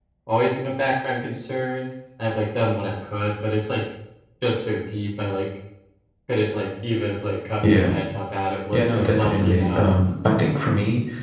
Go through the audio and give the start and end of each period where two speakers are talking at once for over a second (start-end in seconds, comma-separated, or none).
8.7-9.9